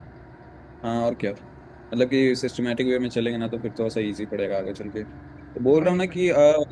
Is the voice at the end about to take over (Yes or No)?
No